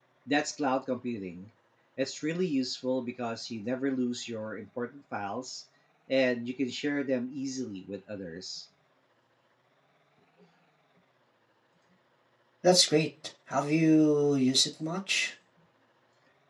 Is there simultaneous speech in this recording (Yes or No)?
No